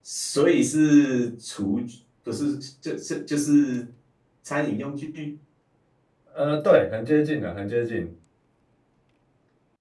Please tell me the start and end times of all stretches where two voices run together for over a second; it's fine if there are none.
none

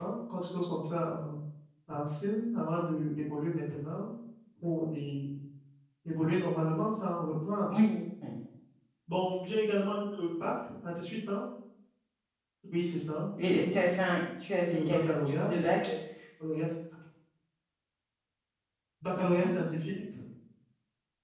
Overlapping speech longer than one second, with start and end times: 14.7-15.9

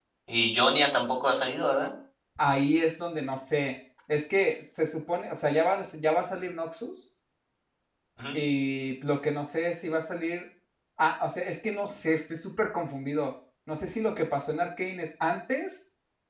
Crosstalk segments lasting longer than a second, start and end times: none

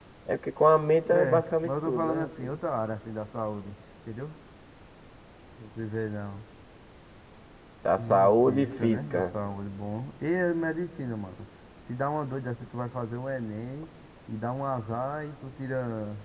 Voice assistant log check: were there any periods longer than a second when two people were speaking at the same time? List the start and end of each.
1.1-2.6, 8.0-9.2

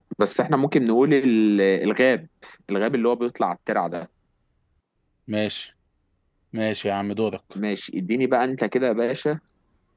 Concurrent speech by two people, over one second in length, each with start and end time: none

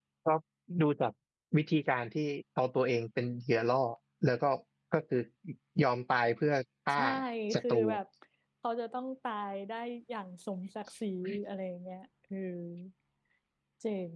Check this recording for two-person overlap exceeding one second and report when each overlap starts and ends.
none

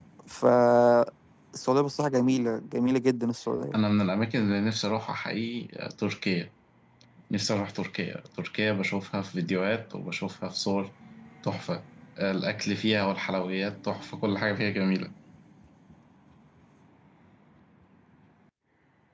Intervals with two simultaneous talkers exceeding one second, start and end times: none

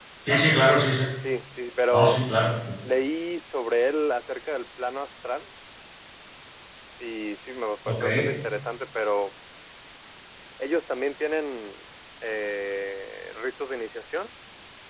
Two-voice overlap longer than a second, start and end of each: none

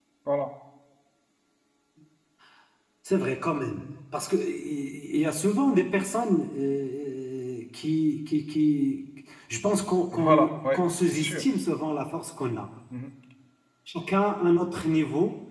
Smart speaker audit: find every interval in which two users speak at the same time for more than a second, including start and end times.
10.1-11.4

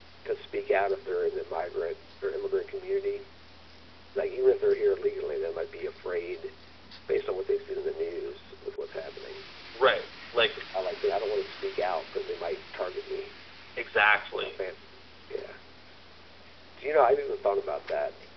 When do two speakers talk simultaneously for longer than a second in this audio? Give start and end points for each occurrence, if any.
none

